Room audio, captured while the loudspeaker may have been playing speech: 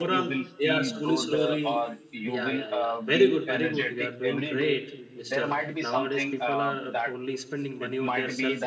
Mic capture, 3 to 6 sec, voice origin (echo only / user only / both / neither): both